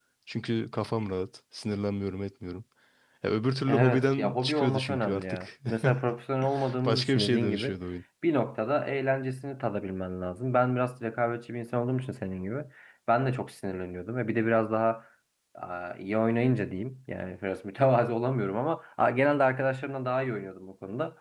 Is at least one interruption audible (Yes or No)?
Yes